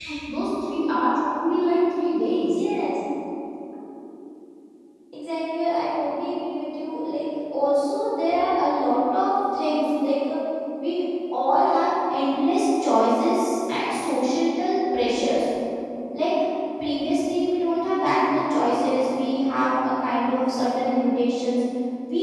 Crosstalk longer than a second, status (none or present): none